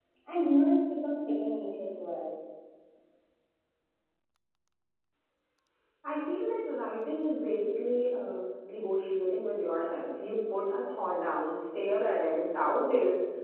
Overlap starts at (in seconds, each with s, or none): none